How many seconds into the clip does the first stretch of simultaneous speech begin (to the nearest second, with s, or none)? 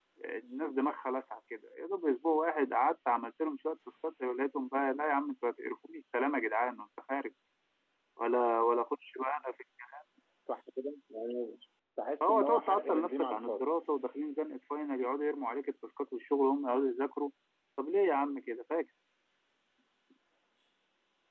12 s